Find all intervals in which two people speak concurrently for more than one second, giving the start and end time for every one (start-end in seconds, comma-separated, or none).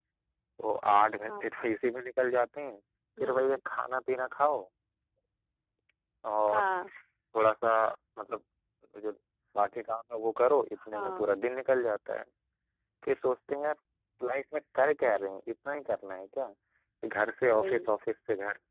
none